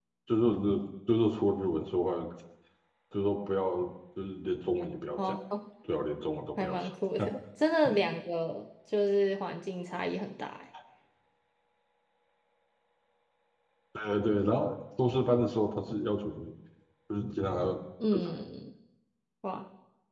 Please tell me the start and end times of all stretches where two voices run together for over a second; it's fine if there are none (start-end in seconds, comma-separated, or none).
none